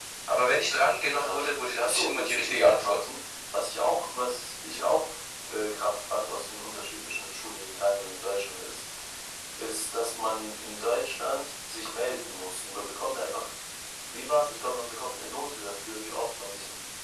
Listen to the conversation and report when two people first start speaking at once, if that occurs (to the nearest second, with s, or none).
1 s